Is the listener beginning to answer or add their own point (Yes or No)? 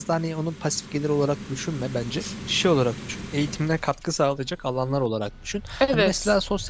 No